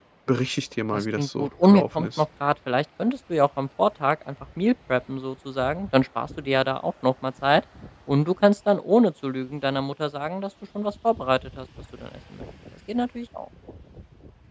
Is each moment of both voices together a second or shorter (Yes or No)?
No